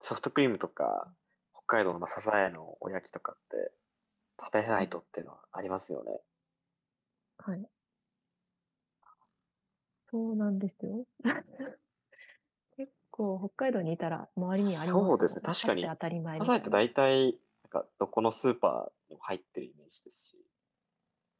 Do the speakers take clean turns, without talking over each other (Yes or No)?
No